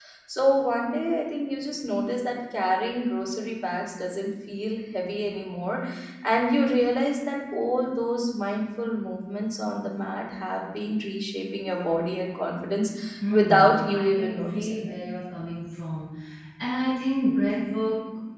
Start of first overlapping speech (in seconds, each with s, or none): 13.3 s